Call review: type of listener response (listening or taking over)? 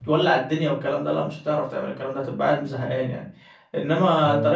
listening